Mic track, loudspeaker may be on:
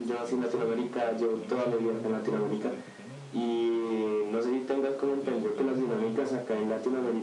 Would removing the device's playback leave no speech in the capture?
No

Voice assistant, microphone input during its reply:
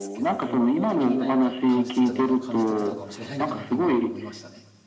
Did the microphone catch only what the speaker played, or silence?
No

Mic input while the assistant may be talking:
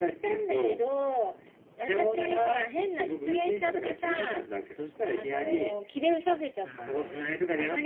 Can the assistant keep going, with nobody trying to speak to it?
No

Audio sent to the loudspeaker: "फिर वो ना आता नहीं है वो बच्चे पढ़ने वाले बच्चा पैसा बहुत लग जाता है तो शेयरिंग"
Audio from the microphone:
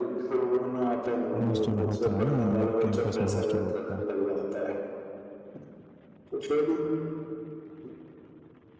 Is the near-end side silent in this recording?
No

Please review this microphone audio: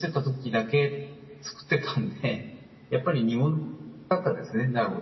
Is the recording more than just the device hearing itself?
No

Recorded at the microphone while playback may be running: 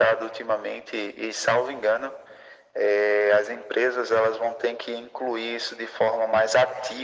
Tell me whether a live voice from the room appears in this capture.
No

